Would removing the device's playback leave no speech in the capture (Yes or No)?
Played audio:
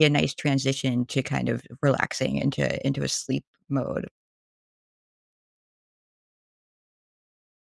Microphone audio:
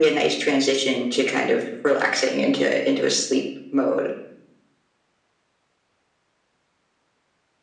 Yes